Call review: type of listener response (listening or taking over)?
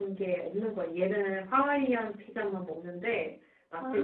listening